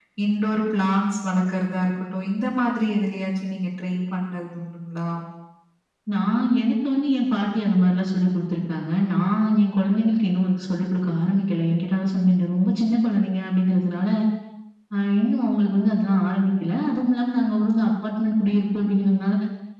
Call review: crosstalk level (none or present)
none